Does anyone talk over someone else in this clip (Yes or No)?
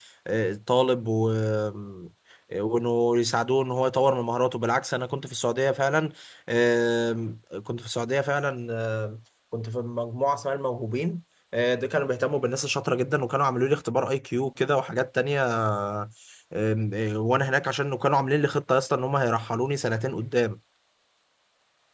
No